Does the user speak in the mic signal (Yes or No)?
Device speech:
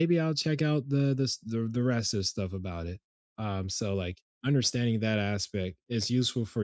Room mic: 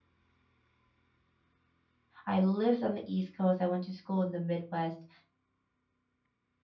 Yes